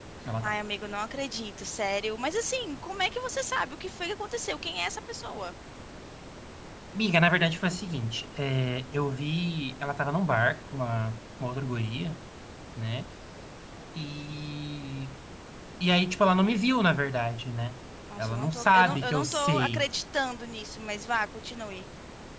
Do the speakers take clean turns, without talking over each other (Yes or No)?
No